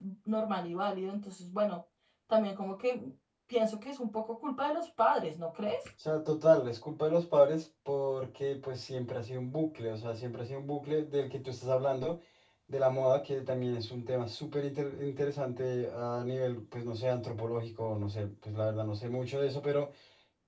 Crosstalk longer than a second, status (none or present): none